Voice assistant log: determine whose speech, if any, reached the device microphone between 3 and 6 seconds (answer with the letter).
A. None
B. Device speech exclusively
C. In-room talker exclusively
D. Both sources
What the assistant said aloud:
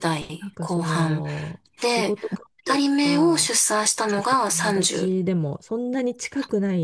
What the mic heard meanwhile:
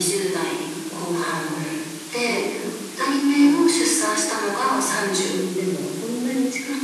B